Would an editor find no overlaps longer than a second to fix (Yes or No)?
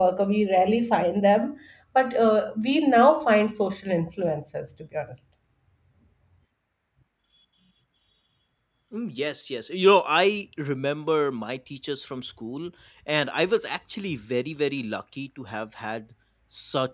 Yes